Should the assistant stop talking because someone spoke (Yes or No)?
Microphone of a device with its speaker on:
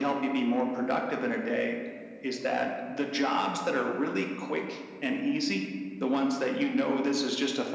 No